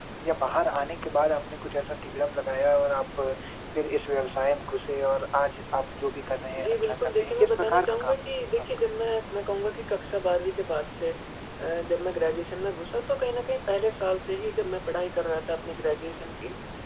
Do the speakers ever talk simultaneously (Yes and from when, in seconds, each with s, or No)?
Yes, from 6.6 s